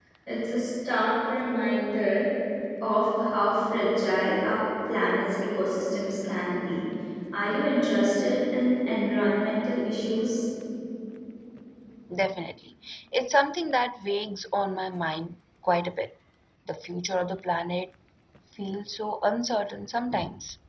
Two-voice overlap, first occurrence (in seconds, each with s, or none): none